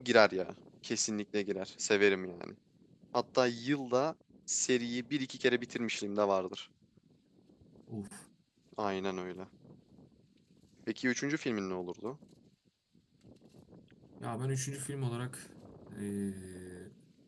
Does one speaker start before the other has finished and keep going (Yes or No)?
No